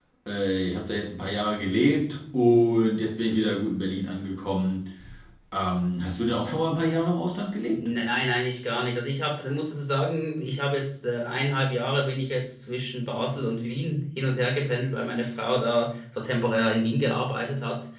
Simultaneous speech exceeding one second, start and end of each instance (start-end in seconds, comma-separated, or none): none